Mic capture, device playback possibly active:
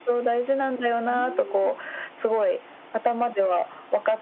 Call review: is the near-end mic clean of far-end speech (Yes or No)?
No